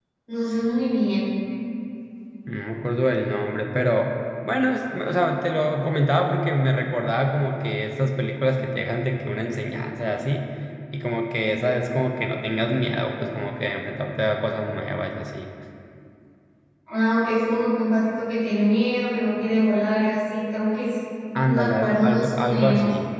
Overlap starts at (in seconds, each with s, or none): 21.4 s